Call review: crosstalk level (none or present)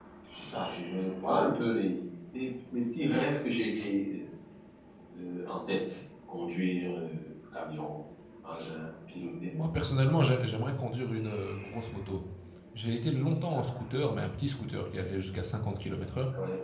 none